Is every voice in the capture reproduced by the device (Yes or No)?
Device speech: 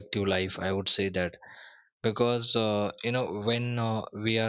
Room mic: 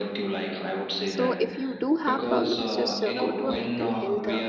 No